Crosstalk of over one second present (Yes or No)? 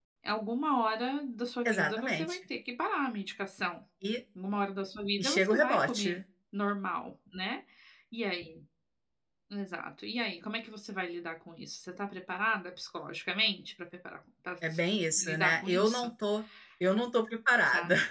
Yes